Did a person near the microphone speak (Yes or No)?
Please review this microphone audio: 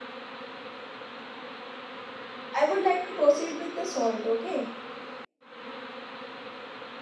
Yes